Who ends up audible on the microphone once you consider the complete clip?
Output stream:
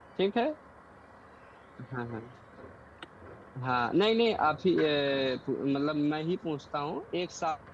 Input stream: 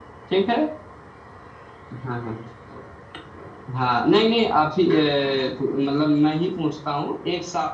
echo only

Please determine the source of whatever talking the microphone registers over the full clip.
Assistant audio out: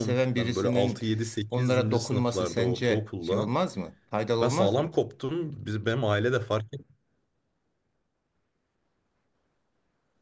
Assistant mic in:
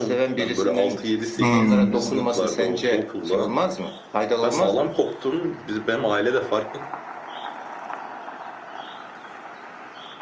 both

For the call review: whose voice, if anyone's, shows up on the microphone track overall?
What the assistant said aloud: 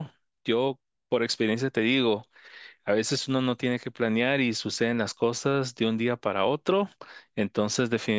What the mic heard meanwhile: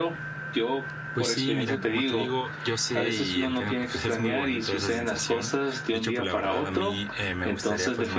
both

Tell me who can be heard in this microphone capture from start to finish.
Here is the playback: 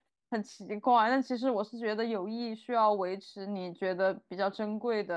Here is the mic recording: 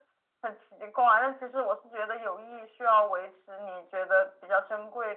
echo only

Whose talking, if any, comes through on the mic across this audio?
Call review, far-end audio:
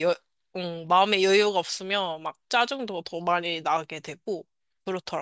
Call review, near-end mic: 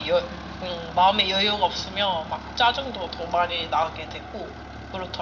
echo only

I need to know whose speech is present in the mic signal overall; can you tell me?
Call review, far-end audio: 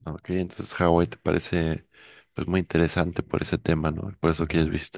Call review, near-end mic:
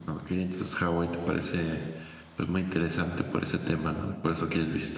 echo only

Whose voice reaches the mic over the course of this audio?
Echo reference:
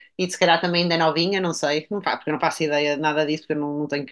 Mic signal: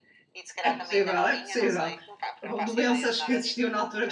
both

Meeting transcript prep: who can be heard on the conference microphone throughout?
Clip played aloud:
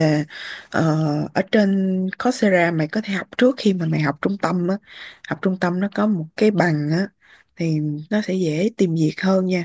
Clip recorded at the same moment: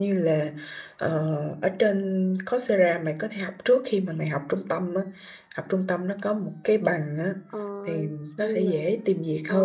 both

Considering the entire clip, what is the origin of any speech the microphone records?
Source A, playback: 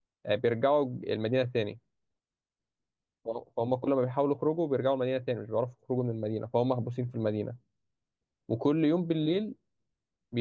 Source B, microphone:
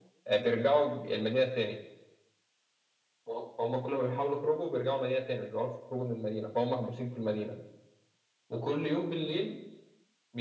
echo only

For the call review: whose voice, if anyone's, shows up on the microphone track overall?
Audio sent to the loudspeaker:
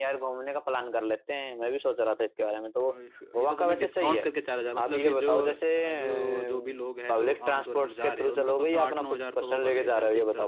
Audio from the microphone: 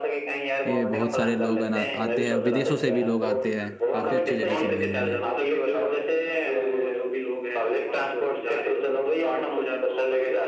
both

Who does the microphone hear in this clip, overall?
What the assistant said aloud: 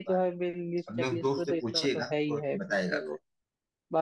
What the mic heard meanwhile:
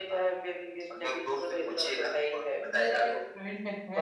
both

